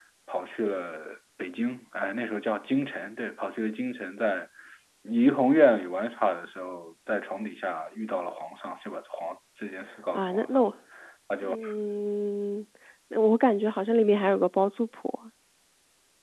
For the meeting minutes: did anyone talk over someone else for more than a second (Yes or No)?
No